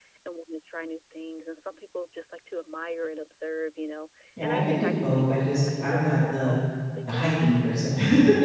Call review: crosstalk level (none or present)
present